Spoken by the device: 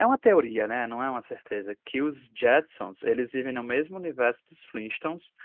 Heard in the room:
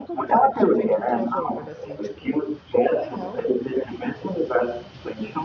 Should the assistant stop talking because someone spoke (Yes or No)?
Yes